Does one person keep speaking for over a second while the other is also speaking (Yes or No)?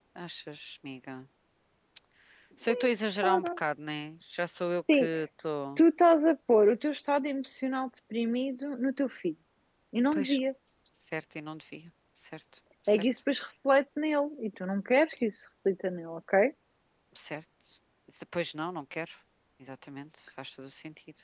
No